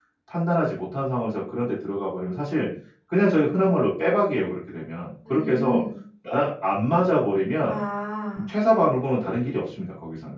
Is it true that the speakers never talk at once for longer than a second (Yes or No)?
Yes